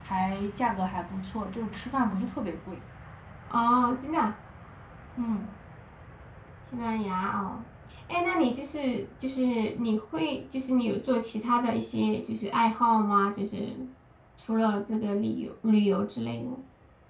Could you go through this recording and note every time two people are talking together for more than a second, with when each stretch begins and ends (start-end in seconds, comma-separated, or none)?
none